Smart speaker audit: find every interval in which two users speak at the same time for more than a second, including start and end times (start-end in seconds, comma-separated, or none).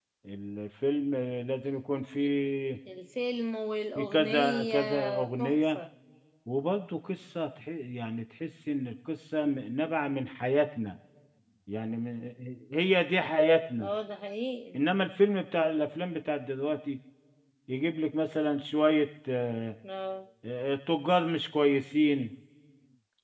4.0-5.8